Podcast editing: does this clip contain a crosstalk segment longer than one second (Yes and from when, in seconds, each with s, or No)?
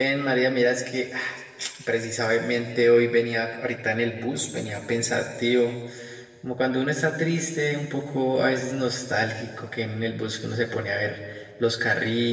No